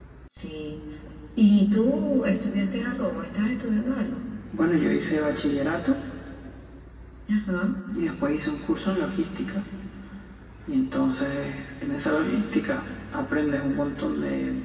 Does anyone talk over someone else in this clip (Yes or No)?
No